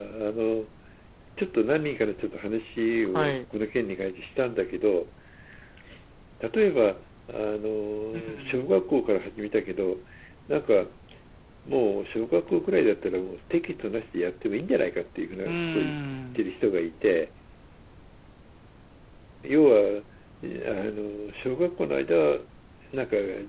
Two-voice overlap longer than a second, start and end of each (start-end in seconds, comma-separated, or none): none